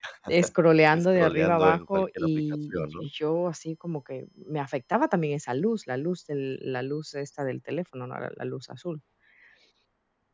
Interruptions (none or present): present